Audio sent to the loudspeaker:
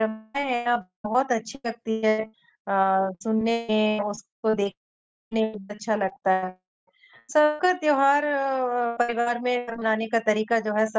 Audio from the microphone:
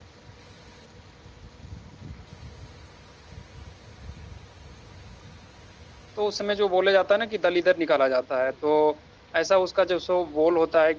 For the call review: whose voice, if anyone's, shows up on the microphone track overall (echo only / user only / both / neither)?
user only